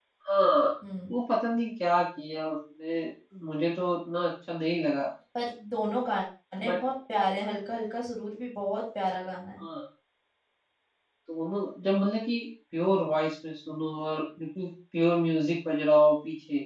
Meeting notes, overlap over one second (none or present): none